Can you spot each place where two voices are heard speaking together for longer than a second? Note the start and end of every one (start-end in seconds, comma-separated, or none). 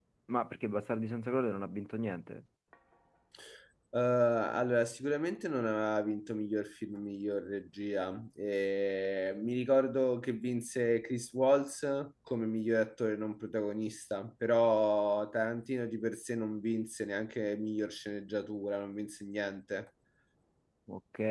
none